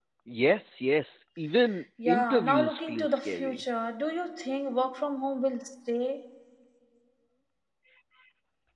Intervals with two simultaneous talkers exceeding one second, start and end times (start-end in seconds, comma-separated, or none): 2.1-3.6